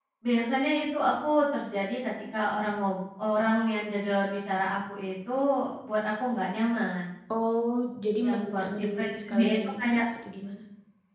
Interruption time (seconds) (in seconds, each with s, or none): 8.2 s